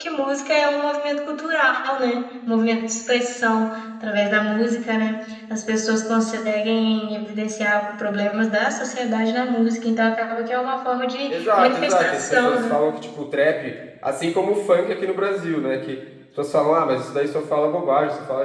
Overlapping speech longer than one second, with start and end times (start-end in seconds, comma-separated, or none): 11.3-12.7